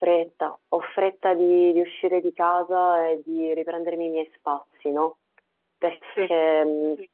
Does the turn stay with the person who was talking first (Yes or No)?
Yes